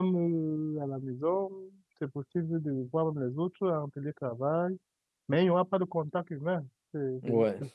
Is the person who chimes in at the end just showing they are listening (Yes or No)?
No